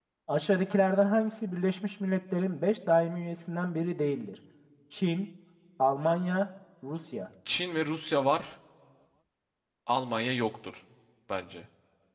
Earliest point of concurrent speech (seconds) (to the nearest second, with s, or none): none